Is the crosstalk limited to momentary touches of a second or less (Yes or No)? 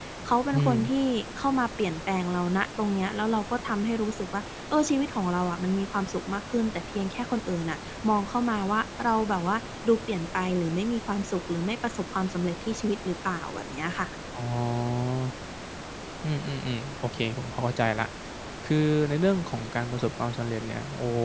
Yes